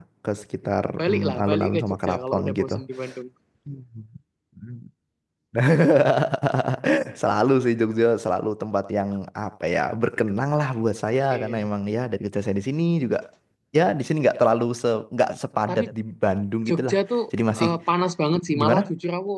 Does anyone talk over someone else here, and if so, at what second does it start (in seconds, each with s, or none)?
1.3 s